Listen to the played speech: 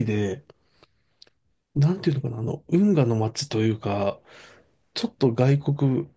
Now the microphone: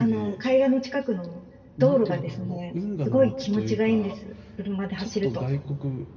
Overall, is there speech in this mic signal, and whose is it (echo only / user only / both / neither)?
both